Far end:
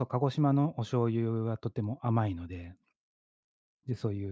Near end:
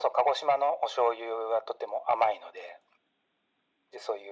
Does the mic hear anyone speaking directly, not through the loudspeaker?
No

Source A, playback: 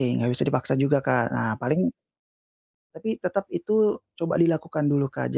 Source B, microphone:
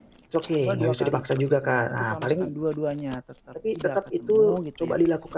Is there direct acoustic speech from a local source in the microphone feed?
Yes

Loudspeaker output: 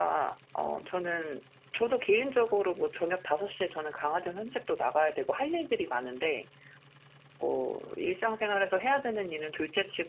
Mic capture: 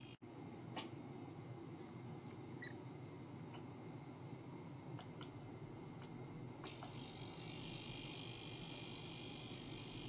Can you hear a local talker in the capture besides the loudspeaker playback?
No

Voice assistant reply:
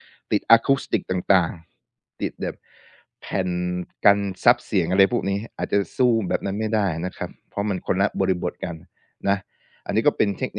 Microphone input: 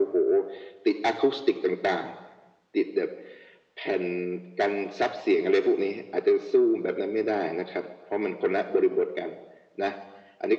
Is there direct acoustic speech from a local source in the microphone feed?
No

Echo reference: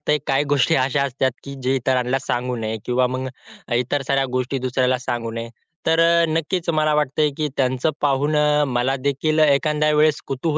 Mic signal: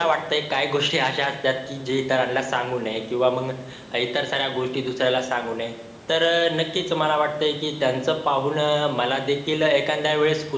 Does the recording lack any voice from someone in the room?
Yes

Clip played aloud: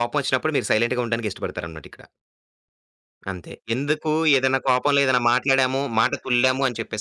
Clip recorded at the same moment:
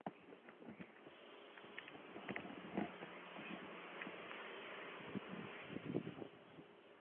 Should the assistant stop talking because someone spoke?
No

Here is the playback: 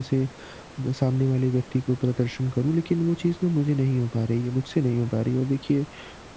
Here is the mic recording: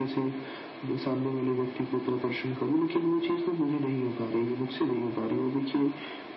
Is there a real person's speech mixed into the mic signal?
No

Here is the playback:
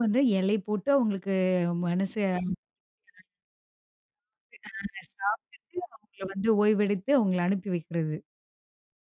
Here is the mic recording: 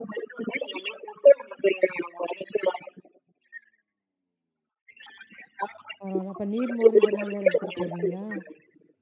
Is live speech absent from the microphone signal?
No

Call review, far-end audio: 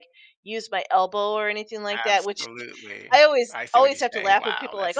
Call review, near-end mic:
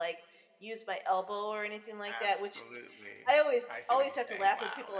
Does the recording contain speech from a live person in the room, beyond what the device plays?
No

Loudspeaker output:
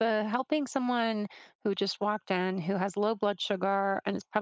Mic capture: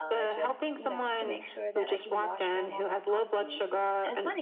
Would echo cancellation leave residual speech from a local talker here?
Yes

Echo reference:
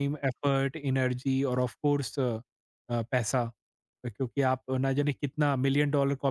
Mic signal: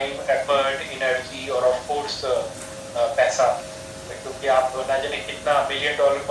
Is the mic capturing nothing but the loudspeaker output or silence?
Yes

